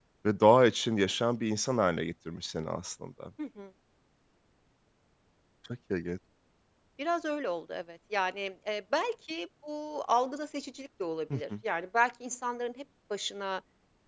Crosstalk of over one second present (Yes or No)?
No